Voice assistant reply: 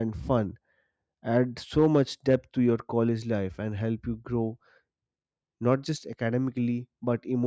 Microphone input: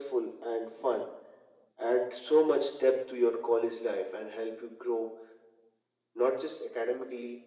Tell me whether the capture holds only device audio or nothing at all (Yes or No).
Yes